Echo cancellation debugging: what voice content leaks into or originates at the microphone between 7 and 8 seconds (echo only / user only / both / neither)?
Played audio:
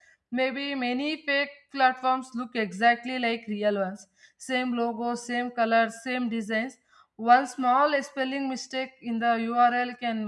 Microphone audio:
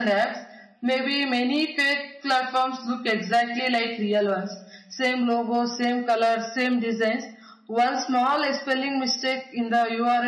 echo only